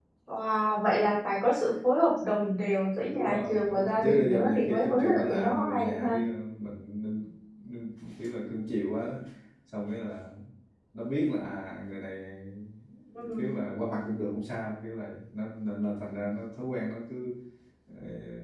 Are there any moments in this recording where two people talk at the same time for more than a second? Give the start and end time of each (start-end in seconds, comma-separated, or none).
3.1-6.2